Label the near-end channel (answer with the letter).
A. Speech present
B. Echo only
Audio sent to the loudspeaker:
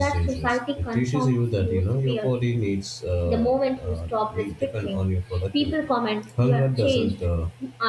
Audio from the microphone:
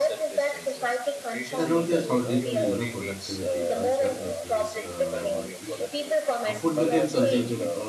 A